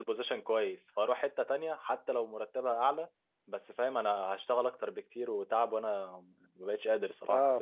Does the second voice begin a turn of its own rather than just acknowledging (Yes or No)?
Yes